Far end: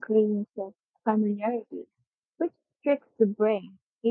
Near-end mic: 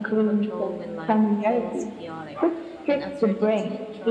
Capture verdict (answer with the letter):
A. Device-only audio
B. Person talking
B